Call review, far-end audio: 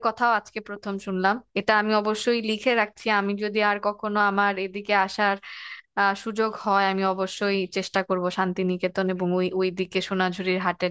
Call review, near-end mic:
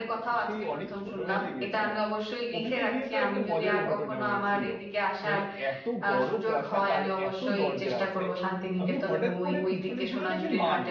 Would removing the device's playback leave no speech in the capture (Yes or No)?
No